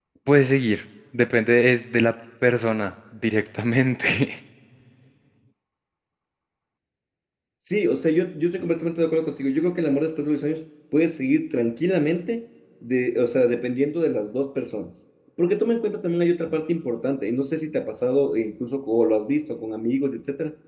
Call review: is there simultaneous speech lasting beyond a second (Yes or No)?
No